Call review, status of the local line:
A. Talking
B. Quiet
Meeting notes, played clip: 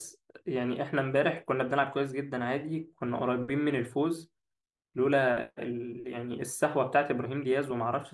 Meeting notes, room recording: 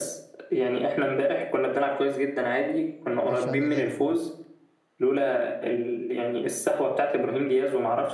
A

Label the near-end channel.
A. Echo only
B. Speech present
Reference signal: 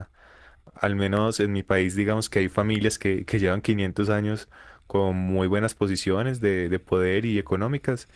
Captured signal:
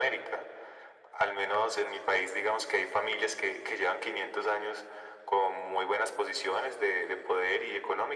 A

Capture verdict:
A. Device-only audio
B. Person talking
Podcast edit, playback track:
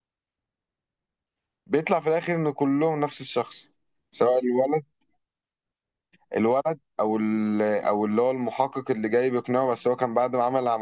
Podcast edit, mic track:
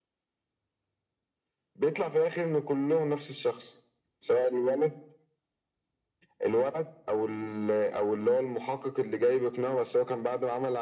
A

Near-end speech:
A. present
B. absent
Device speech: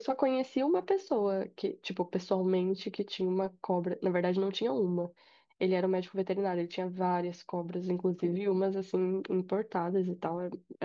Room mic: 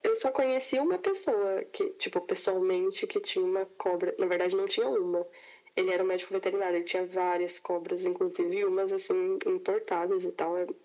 B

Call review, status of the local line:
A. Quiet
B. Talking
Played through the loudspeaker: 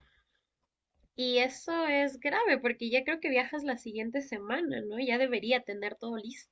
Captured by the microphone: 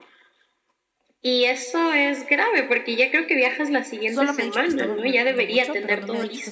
B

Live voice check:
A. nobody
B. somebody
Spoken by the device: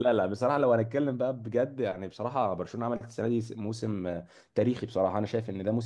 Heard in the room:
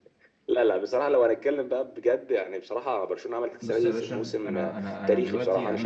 B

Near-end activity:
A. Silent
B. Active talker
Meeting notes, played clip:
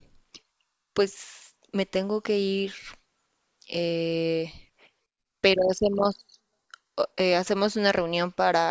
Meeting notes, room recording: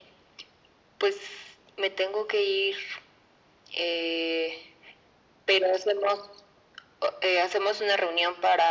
A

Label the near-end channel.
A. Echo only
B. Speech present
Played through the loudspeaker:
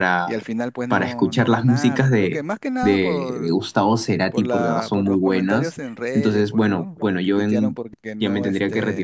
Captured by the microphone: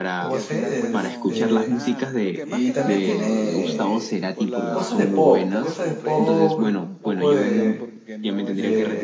B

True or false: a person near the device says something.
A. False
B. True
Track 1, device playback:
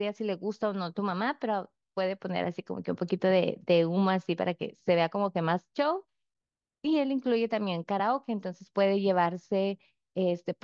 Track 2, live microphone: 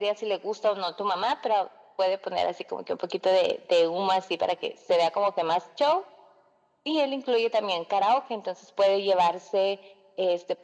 A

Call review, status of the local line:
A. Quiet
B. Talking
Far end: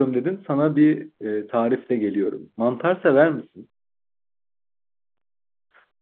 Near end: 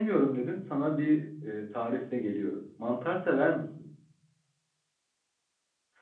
A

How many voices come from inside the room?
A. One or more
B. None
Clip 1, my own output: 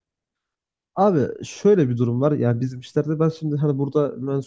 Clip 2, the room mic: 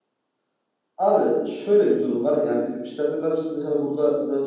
B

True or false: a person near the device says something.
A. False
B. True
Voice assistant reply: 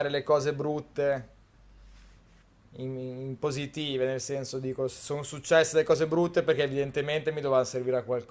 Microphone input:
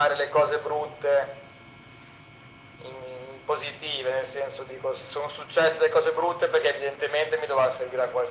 A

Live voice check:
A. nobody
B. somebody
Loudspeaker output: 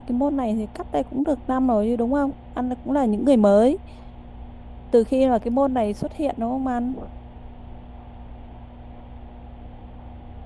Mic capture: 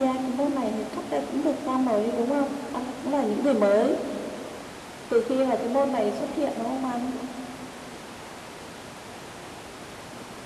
A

